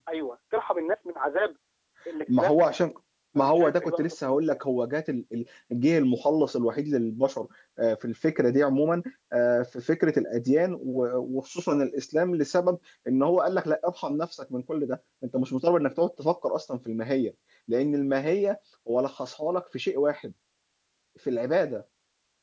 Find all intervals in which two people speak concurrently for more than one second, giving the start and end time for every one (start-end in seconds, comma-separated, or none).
3.4-4.6